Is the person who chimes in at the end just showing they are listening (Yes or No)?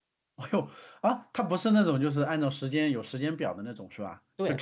No